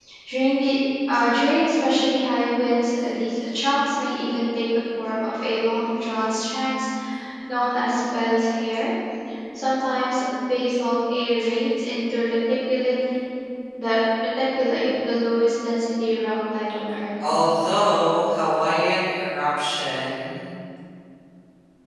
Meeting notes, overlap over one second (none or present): none